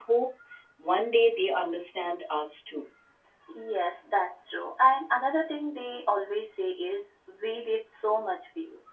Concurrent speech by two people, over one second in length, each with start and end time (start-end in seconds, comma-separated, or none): none